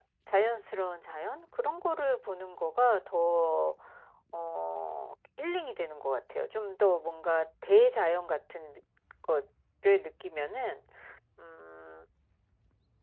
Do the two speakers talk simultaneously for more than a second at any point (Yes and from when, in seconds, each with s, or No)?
No